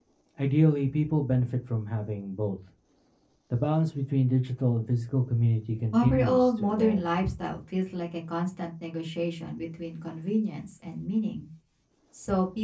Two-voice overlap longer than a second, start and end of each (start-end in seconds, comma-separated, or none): 5.9-7.2